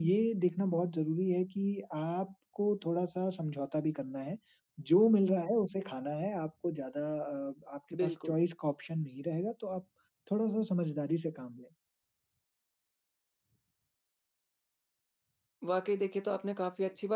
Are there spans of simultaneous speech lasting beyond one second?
No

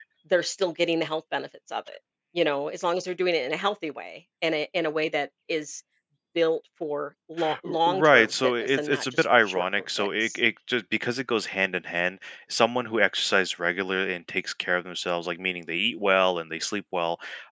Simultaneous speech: Yes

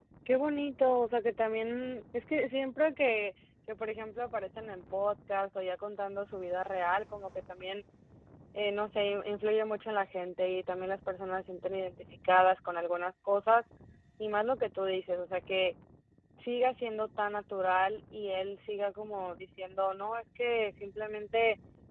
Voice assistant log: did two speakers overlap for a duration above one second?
No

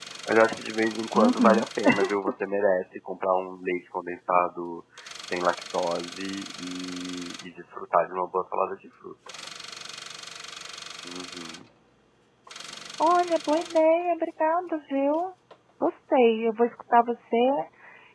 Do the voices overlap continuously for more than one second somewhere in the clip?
No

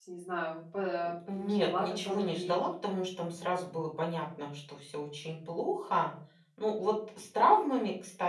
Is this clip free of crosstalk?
No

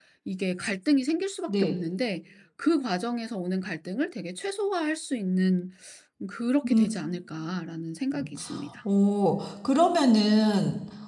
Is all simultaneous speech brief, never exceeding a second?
Yes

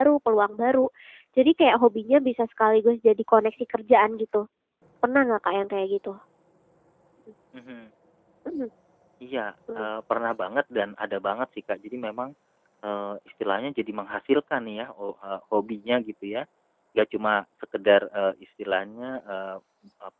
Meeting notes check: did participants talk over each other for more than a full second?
No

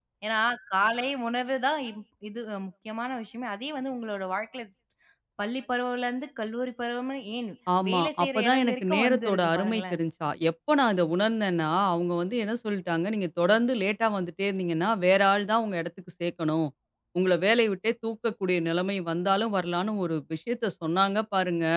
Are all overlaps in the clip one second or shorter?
No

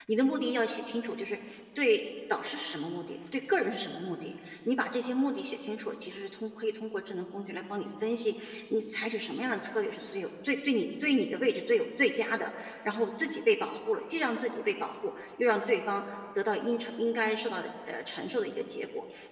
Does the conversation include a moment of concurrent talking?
No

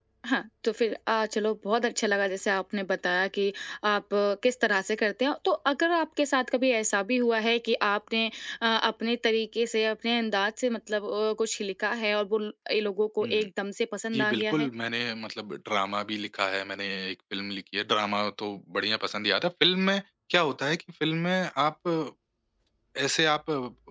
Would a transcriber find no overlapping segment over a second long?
Yes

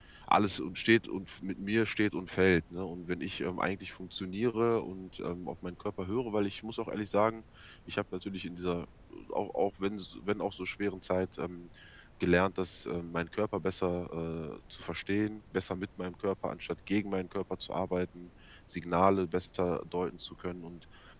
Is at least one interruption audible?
No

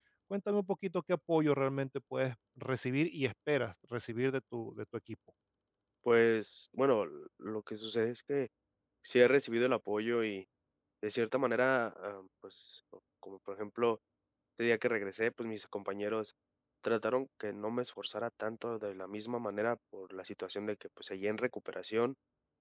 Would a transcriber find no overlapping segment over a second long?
Yes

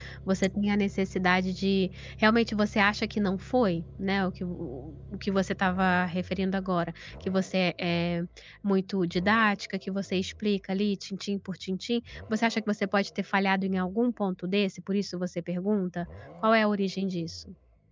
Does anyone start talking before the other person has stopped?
No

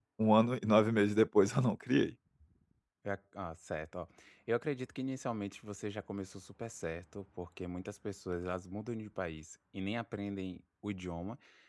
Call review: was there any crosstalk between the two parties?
No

